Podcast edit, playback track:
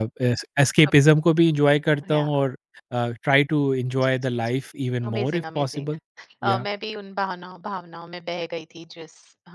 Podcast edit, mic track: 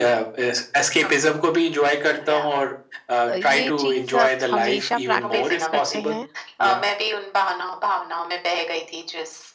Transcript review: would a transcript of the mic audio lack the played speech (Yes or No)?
No